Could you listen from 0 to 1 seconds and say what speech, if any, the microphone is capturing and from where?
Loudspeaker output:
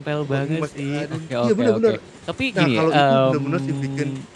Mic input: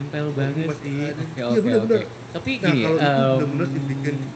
echo only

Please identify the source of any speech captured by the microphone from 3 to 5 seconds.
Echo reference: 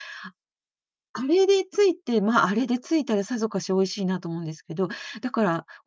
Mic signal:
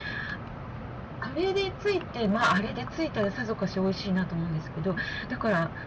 echo only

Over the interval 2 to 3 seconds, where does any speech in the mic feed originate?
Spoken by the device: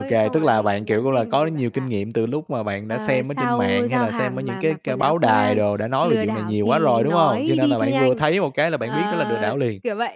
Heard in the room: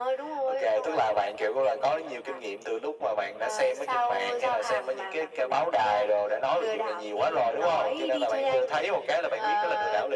echo only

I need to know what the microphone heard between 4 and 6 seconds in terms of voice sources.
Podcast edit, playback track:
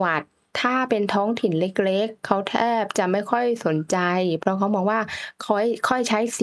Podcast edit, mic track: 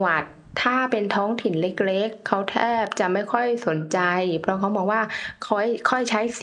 echo only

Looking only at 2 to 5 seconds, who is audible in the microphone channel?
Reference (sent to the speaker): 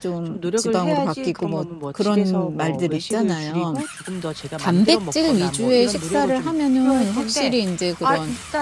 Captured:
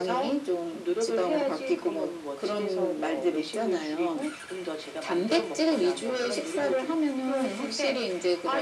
echo only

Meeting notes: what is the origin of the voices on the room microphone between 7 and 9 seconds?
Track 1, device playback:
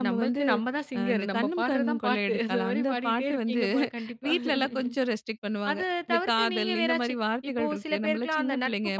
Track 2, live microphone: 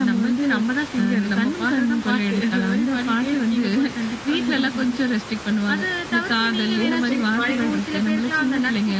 both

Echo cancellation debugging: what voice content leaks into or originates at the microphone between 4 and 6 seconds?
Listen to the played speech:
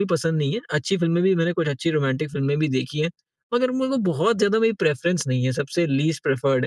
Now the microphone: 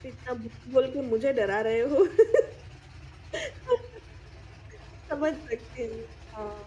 user only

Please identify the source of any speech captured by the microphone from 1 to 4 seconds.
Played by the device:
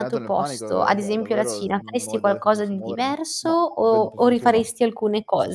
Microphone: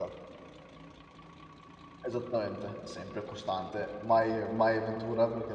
user only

